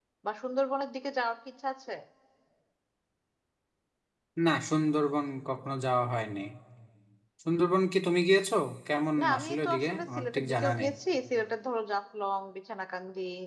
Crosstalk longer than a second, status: present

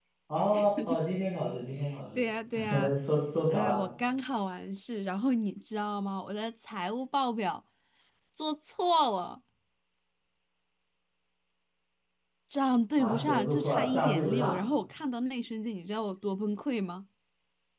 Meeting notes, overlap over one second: present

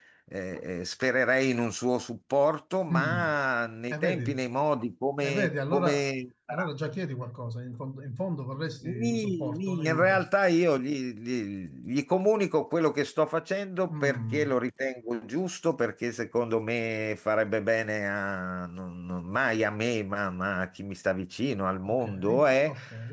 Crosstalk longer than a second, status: present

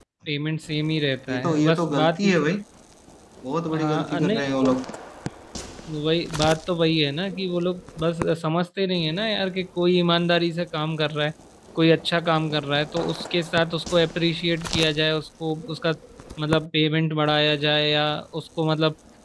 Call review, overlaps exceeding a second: present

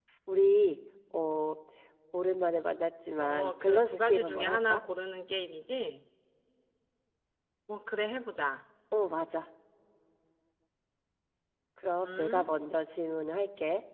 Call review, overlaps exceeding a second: present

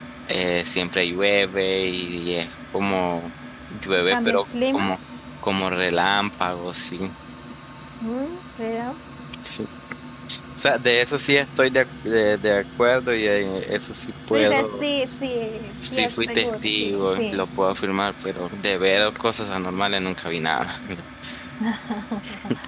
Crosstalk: present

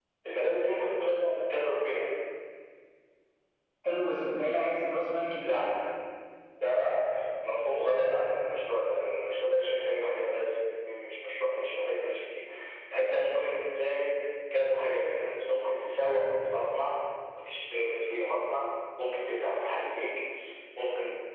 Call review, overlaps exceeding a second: none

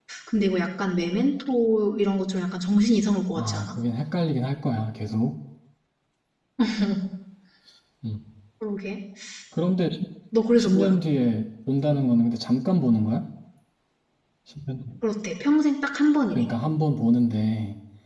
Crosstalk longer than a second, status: none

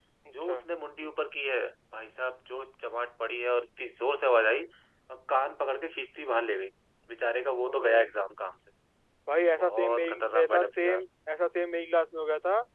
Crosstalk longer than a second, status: present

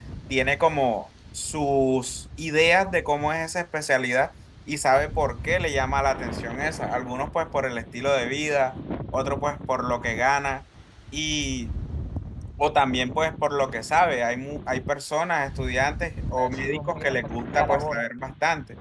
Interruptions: present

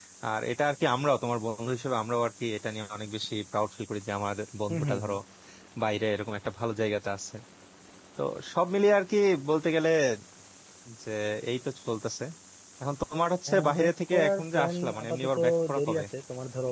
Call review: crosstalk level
present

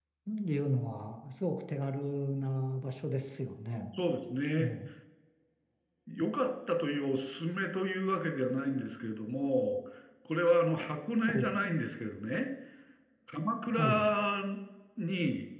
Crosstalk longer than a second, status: none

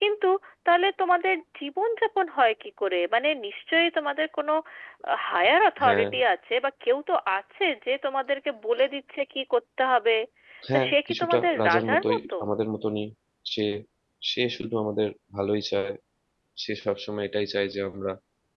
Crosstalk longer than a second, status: present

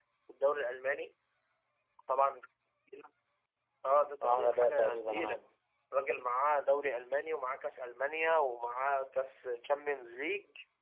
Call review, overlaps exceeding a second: present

